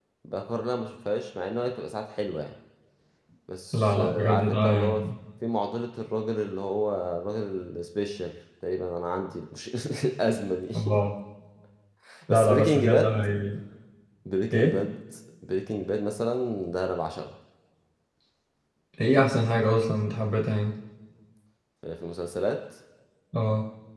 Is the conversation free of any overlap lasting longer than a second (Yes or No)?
No